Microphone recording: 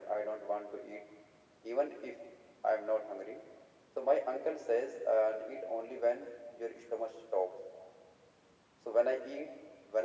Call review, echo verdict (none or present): present